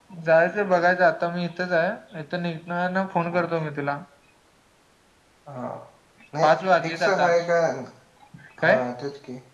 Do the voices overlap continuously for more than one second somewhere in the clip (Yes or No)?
No